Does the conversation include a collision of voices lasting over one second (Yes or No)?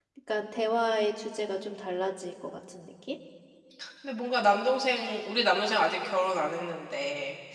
No